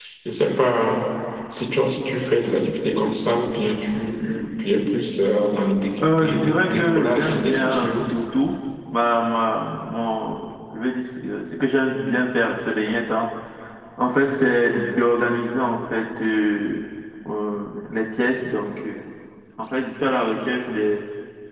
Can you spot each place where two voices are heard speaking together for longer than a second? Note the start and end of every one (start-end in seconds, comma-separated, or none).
6.0-7.8